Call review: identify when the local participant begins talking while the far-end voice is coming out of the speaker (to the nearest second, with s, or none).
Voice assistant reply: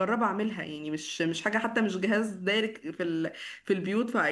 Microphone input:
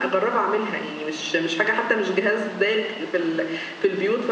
none